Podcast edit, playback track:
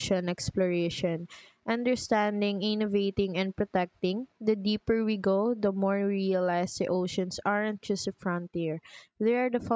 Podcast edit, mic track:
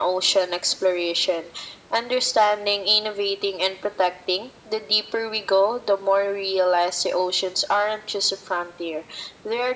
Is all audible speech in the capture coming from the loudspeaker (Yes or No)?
Yes